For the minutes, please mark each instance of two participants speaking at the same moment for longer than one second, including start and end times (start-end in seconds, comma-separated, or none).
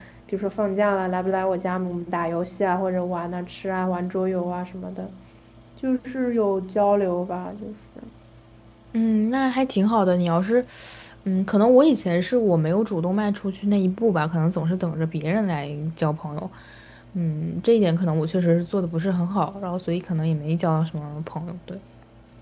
none